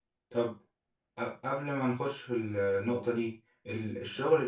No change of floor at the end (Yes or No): Yes